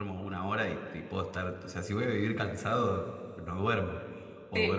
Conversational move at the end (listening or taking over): taking over